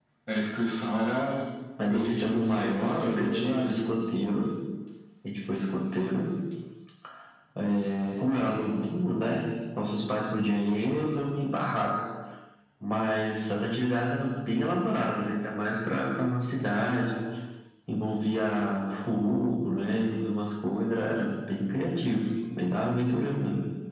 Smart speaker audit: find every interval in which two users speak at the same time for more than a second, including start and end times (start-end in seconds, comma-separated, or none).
1.9-3.8